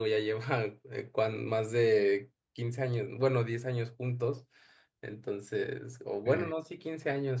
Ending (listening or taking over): listening